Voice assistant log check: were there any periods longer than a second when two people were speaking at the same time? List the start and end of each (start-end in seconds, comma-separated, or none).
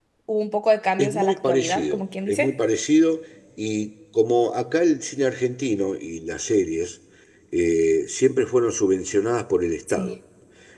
1.0-2.5